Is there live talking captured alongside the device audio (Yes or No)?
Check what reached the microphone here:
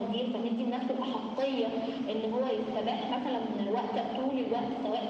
No